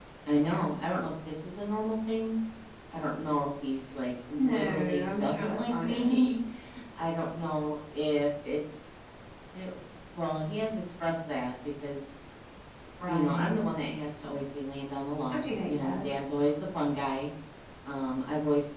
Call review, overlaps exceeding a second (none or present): present